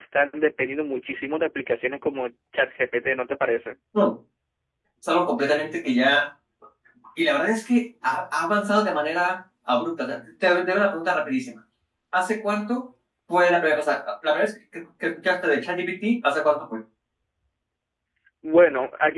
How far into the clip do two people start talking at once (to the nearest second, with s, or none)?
none